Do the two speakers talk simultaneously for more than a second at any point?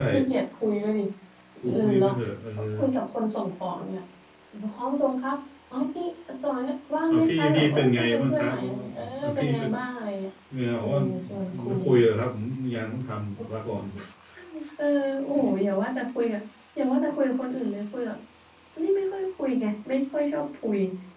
Yes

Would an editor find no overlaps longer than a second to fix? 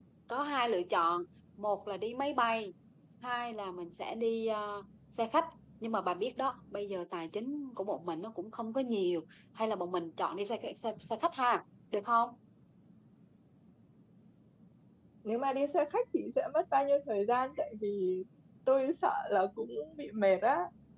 Yes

